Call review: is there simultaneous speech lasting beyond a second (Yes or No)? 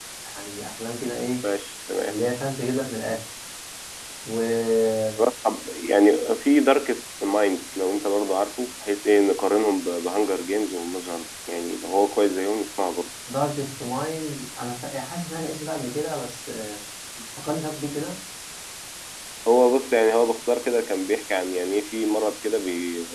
No